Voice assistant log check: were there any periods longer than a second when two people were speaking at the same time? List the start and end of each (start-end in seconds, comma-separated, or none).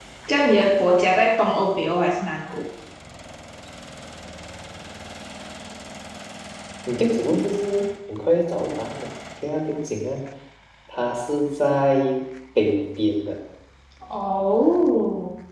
none